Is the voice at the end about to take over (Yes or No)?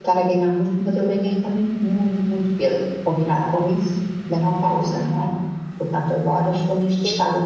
No